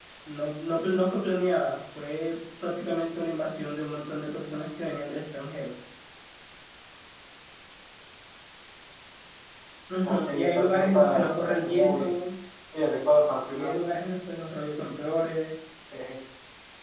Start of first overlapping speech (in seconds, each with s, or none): 10.0 s